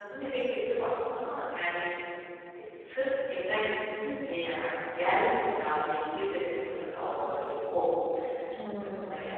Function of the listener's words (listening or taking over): taking over